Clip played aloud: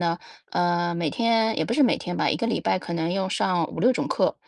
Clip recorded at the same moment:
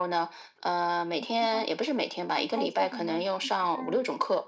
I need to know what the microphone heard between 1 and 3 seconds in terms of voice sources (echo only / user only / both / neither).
both